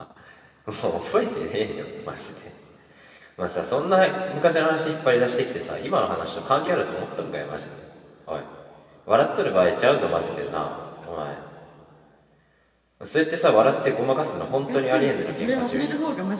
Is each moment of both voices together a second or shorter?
No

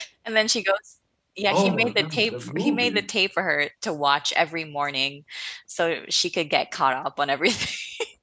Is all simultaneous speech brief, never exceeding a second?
No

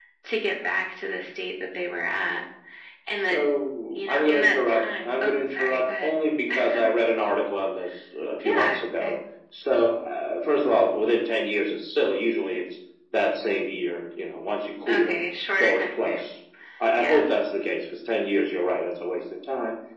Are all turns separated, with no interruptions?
No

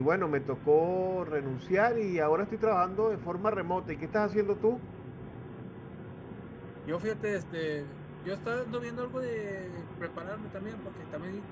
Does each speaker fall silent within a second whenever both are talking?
Yes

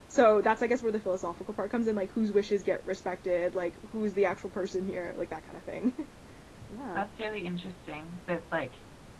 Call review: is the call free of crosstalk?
Yes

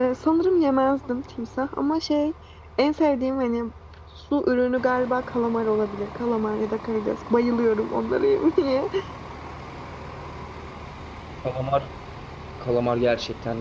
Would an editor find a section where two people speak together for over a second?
No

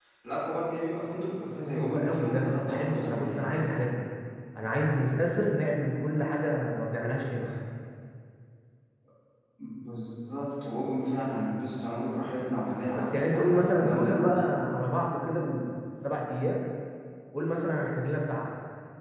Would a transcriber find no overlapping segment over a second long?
No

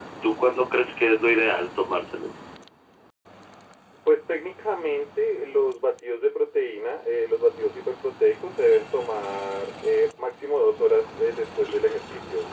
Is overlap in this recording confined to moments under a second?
Yes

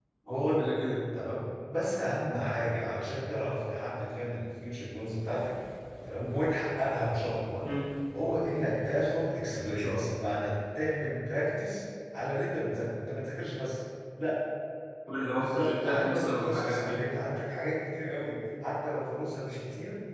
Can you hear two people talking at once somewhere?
Yes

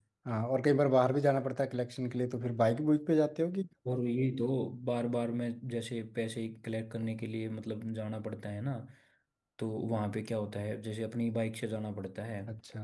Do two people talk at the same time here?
No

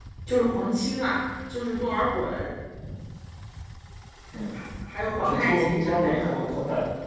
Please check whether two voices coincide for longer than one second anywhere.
Yes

